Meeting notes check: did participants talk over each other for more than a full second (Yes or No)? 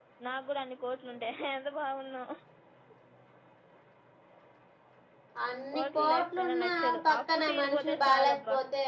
Yes